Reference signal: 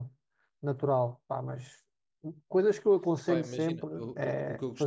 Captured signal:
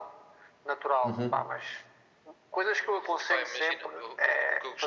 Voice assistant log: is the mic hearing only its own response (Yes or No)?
No